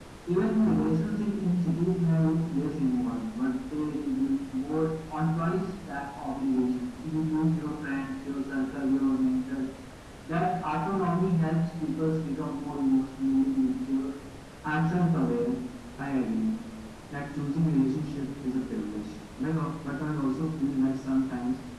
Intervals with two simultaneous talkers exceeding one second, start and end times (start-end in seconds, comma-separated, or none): none